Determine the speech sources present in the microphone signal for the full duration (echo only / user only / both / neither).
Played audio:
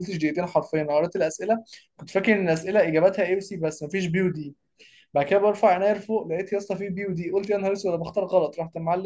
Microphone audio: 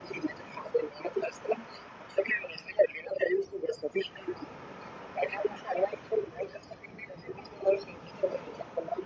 echo only